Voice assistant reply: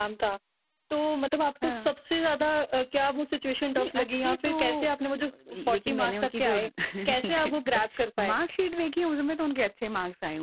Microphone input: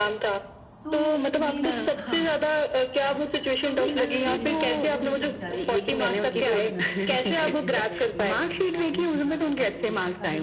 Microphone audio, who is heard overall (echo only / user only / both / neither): both